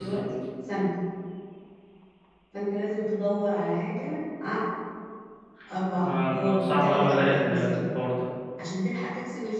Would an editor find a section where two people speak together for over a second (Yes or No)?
Yes